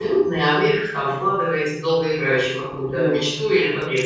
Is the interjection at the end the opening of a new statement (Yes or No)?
Yes